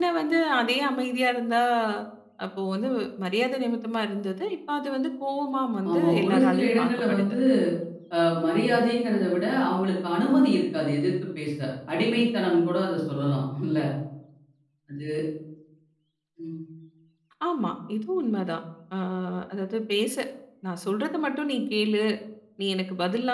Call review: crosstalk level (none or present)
present